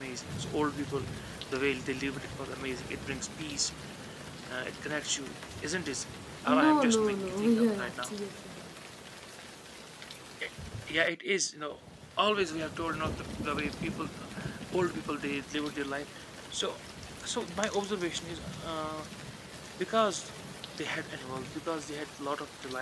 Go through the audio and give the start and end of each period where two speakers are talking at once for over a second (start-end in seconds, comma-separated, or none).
6.6-8.1